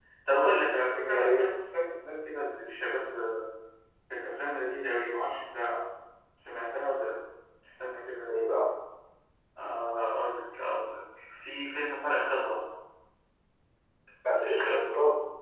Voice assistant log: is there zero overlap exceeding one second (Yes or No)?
Yes